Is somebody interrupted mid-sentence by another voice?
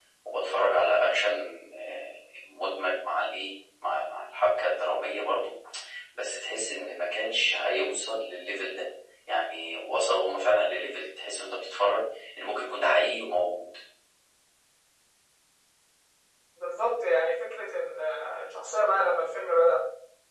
No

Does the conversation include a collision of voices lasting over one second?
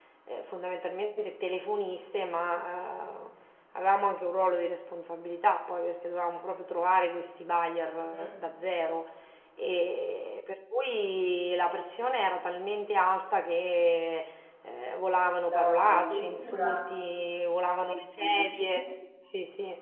Yes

